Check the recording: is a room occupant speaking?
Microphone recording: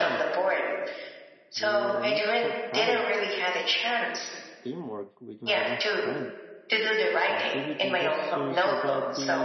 Yes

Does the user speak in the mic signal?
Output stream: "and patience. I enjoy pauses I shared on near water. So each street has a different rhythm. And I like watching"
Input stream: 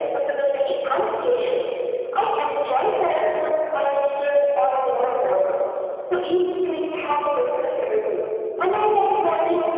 No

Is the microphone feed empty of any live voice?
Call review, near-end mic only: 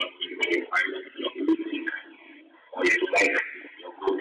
Yes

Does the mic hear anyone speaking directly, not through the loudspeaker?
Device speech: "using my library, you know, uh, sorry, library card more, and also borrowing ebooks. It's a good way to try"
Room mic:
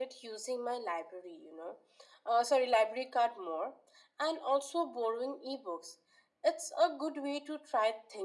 No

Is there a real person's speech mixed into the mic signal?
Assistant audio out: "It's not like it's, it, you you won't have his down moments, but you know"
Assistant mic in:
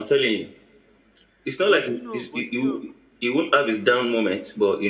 Yes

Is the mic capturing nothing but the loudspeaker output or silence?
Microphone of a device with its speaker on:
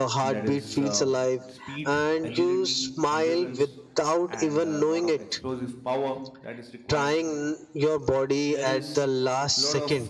No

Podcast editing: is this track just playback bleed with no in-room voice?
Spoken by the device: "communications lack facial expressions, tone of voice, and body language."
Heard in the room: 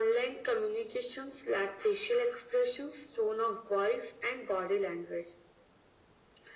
Yes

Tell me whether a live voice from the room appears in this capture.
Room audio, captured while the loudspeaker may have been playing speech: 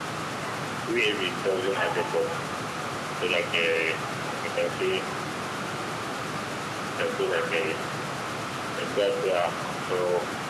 No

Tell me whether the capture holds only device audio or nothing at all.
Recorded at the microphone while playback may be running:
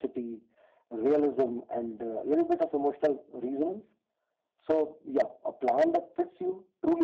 Yes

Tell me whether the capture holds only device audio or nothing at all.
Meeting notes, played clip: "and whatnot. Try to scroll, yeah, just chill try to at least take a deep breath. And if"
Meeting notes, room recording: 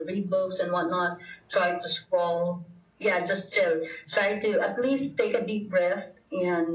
Yes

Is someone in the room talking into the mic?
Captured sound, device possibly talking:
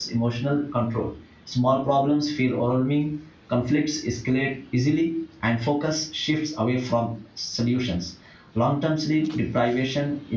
Yes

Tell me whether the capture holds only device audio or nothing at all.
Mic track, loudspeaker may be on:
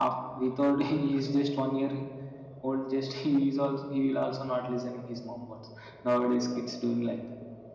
Yes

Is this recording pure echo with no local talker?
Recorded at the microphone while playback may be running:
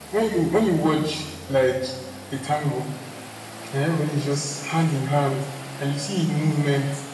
Yes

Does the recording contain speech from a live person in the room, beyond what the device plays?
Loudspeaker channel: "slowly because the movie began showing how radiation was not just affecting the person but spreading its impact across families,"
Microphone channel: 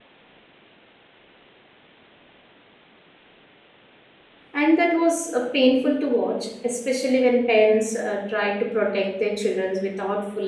Yes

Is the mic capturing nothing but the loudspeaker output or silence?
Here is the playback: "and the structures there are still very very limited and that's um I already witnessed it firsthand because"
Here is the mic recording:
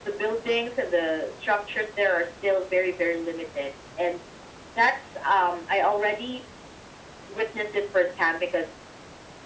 Yes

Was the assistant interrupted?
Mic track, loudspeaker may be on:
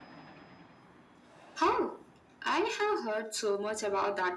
No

